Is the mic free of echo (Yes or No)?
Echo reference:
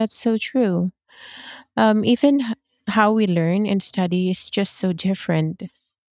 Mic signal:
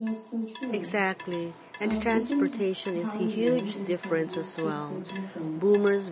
No